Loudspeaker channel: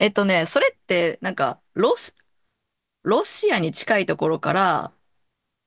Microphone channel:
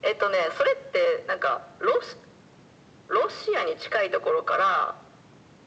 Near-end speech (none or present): none